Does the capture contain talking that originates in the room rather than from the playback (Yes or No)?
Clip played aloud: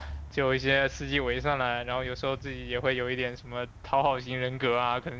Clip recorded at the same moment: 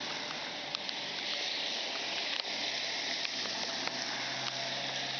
No